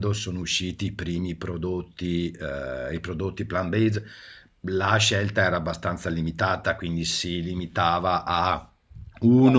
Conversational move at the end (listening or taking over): listening